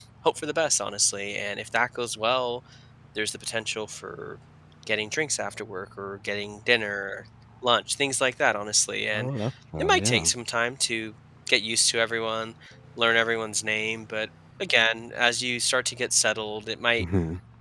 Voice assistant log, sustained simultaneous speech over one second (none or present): none